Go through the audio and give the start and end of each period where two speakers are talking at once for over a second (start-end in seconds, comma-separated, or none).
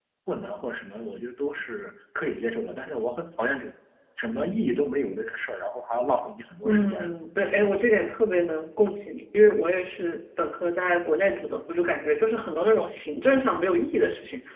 none